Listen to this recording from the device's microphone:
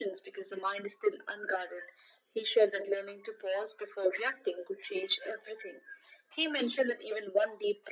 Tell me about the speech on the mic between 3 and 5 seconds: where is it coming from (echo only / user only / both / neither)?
echo only